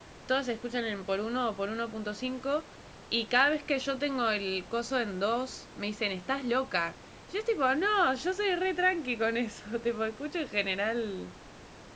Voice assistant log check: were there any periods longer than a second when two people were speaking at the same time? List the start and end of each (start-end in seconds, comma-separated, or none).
none